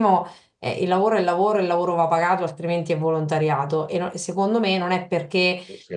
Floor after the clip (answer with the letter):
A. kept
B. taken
A